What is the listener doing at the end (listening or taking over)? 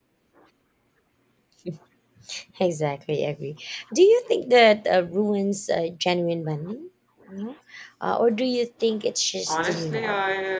taking over